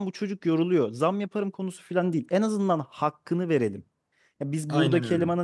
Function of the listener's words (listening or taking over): listening